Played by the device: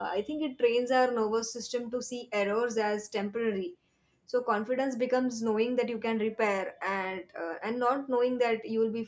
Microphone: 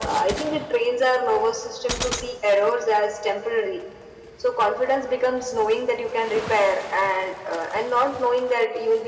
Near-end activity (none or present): none